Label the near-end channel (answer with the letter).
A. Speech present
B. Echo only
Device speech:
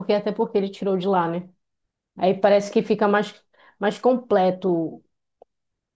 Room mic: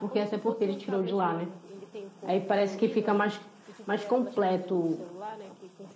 A